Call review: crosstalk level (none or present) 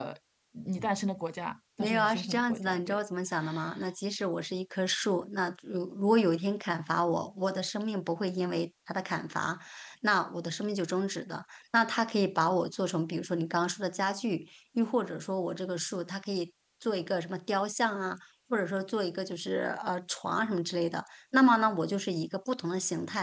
present